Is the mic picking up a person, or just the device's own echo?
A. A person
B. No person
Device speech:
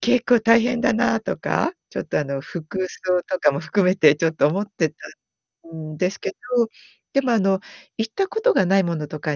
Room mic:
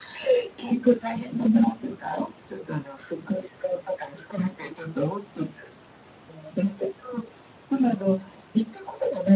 B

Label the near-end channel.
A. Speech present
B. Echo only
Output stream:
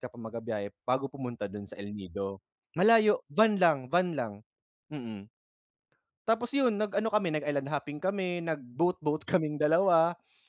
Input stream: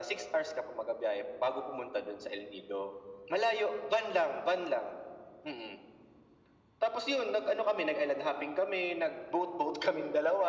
B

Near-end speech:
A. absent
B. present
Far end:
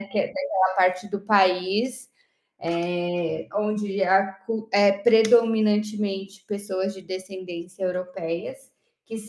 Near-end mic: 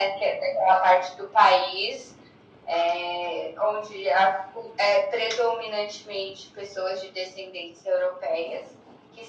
A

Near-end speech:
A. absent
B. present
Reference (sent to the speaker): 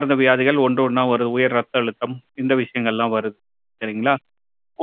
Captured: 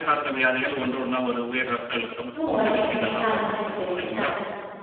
B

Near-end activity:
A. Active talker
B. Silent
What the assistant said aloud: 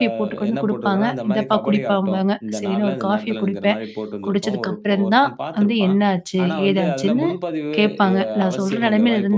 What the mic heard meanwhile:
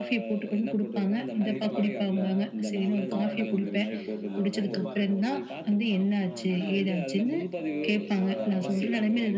A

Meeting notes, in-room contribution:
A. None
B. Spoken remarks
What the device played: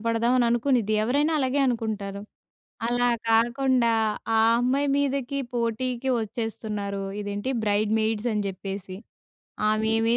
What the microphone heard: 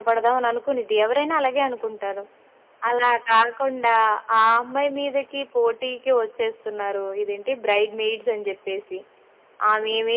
A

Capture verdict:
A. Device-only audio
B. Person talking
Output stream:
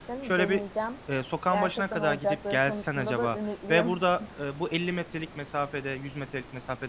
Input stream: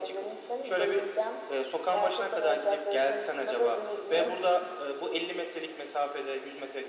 A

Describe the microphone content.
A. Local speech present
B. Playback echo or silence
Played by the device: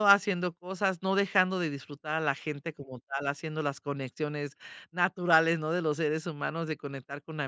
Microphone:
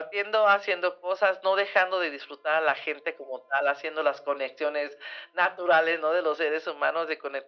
B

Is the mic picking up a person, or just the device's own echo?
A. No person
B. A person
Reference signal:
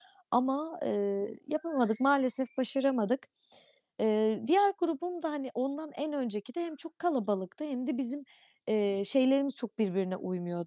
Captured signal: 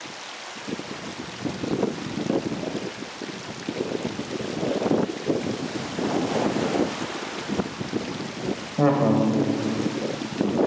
B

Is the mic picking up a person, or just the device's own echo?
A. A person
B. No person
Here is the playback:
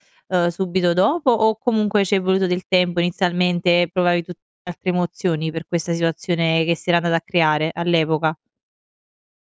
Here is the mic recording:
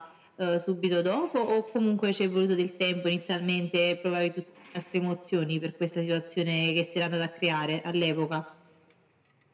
B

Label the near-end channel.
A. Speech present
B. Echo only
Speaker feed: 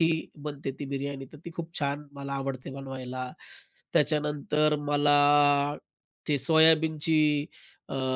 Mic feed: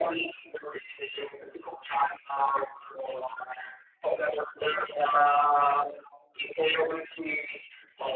B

